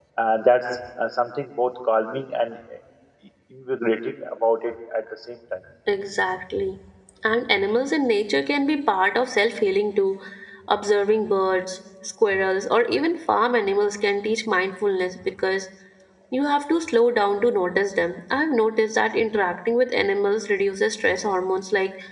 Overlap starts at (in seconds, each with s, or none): none